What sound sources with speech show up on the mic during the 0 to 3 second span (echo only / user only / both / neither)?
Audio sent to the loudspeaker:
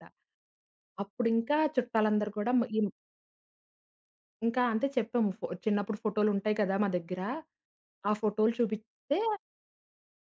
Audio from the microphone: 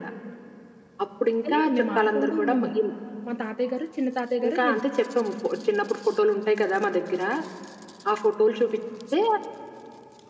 both